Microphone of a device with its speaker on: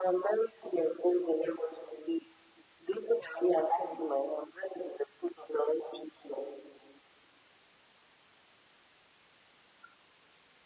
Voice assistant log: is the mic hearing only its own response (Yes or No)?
Yes